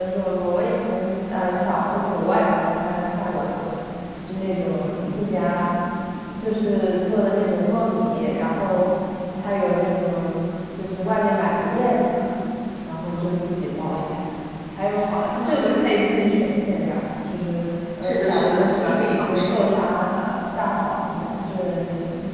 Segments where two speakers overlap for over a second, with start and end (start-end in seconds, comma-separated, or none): 18.0-19.6